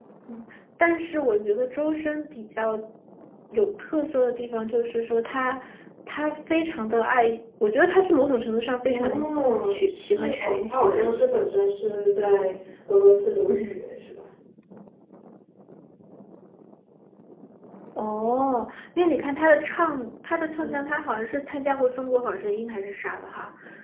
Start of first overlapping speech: 8.9 s

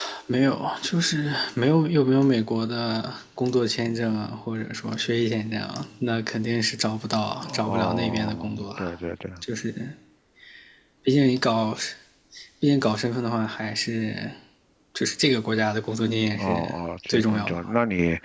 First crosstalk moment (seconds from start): 7.4 s

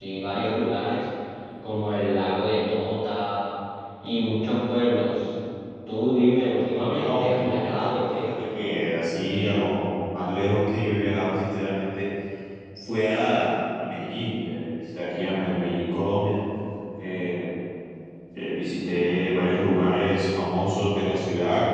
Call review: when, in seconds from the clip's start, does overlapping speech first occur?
6.7 s

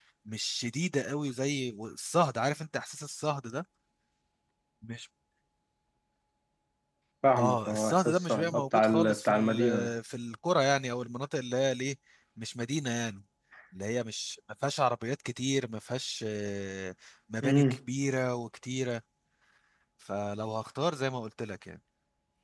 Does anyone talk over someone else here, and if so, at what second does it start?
7.4 s

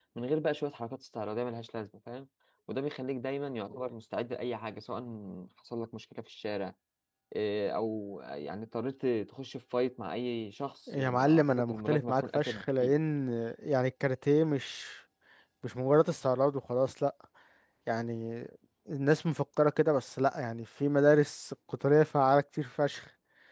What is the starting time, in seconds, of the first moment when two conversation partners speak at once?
10.9 s

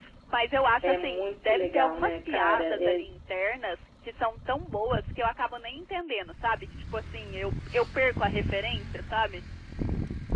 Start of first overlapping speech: 0.8 s

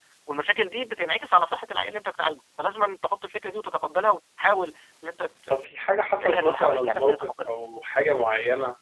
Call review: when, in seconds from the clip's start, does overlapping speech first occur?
5.5 s

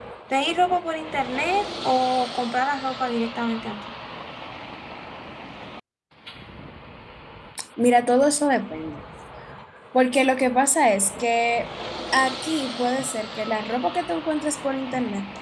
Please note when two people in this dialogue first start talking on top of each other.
none

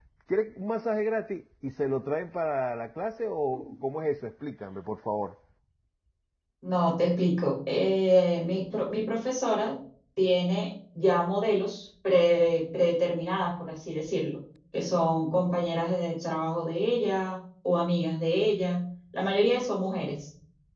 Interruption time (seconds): none

